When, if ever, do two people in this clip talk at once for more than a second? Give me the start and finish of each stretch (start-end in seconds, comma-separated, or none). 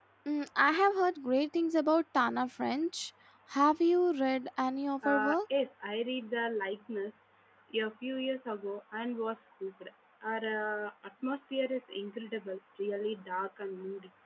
none